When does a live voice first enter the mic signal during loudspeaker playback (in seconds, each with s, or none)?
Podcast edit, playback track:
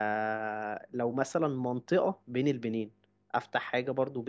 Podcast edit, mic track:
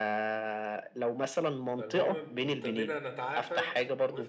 1.7 s